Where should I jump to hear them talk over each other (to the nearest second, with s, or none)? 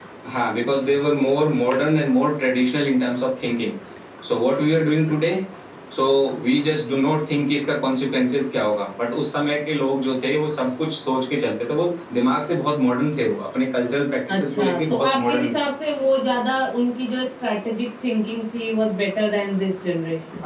14 s